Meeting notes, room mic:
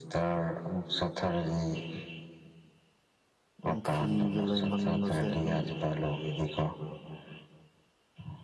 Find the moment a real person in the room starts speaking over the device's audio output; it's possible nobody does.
4 s

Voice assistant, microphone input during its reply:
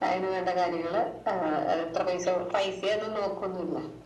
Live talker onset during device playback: none

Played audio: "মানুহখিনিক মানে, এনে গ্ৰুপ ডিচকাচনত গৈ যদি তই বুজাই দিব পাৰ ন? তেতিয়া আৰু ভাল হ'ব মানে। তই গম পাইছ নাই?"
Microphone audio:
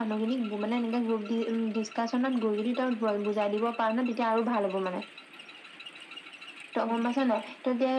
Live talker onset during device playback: none

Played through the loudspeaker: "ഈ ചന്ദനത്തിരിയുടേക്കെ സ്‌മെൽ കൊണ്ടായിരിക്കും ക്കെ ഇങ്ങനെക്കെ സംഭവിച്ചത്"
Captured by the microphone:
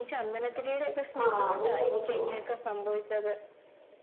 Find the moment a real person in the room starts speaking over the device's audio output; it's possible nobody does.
1 s

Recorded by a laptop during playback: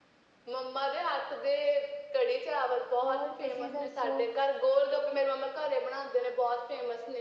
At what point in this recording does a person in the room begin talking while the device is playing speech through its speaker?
3 s

